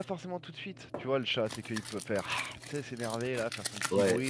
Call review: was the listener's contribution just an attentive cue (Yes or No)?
No